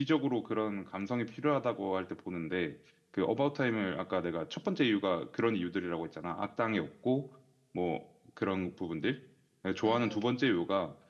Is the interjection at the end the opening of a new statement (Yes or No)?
No